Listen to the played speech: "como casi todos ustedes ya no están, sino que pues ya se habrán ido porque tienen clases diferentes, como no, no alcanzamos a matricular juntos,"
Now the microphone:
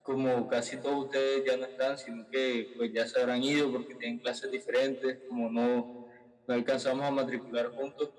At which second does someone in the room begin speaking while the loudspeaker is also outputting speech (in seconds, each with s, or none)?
none